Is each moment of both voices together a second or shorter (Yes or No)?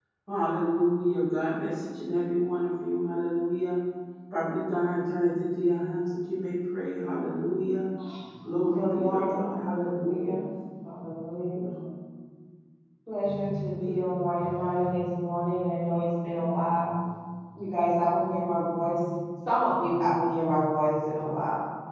No